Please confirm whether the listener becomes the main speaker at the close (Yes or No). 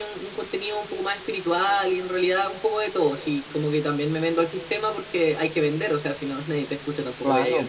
Yes